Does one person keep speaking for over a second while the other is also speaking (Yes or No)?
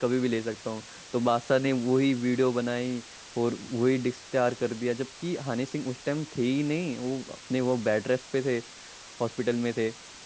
No